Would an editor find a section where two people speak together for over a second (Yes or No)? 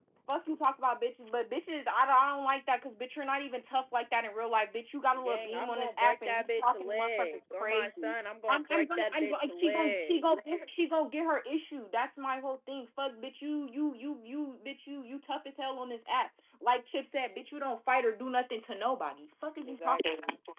Yes